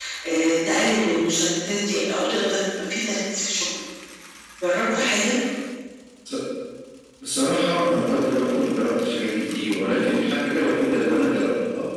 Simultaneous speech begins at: none

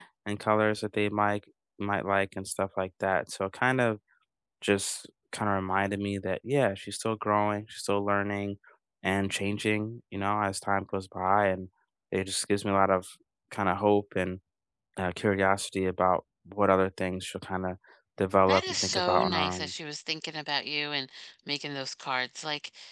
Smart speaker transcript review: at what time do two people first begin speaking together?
18.5 s

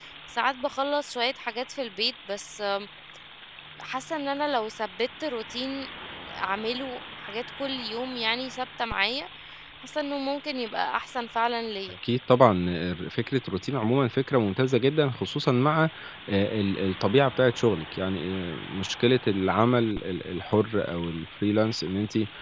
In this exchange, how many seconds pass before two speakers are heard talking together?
none

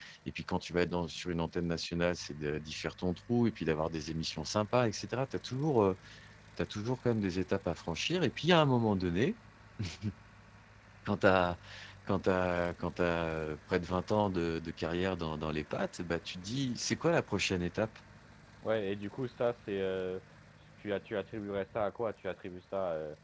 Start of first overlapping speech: none

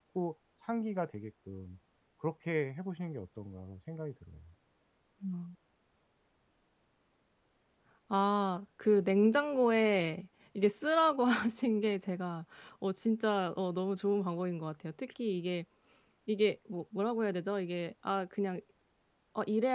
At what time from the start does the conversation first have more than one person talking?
none

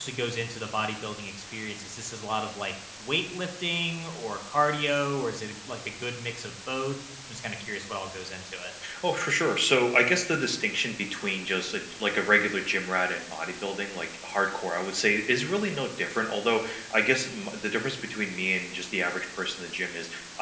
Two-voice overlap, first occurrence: none

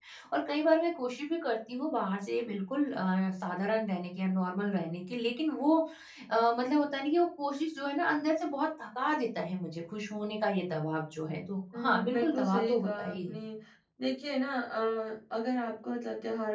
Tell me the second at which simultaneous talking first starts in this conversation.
11.7 s

